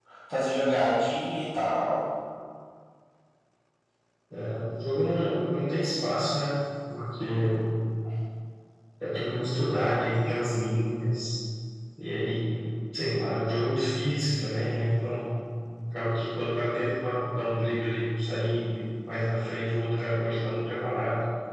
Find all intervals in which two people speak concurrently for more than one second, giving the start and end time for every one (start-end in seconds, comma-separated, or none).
none